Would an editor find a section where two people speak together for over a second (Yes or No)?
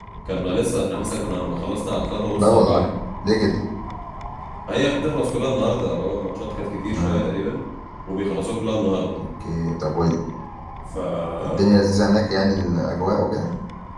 No